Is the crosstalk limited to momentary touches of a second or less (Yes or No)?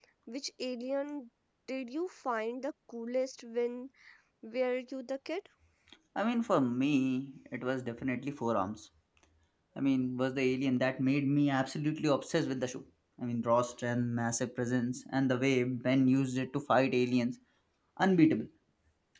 Yes